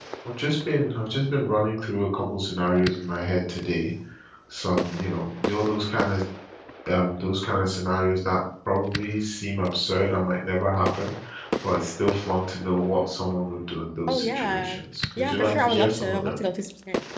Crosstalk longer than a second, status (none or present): present